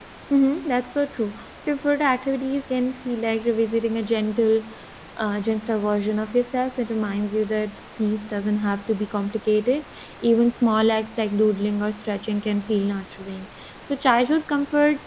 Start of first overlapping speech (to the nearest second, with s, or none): none